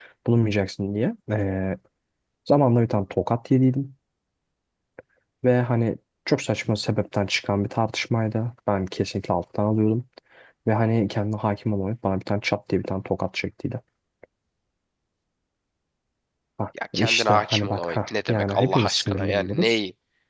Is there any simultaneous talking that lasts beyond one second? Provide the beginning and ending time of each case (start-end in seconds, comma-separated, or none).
16.9-19.8